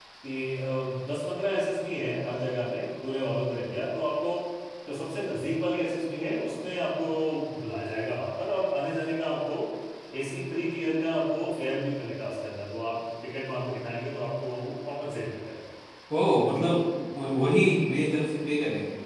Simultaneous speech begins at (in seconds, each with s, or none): none